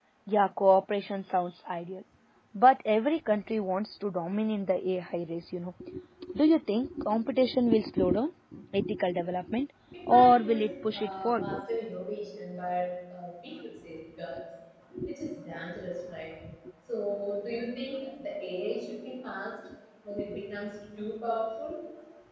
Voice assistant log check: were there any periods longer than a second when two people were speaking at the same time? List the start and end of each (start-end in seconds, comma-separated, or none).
10.1-11.6